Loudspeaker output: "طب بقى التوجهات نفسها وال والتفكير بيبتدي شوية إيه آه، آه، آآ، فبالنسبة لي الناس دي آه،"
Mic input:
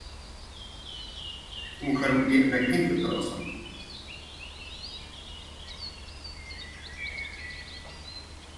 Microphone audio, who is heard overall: user only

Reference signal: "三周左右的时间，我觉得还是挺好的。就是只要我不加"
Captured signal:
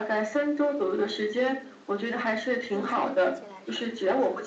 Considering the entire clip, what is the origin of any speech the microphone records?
both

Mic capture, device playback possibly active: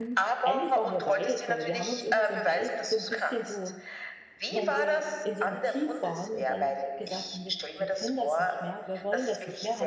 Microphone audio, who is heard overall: both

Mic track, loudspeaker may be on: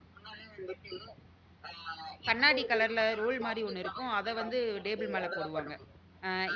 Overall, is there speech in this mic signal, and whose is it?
both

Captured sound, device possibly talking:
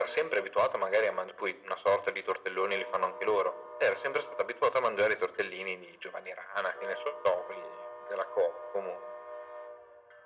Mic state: echo only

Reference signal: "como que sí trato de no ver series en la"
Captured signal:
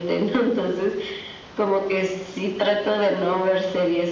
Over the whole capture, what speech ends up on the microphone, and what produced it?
echo only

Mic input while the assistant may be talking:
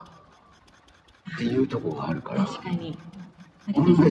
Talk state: echo only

